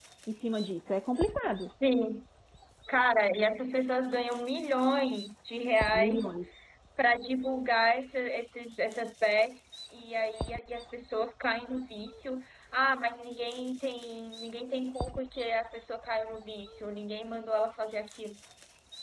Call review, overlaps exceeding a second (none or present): none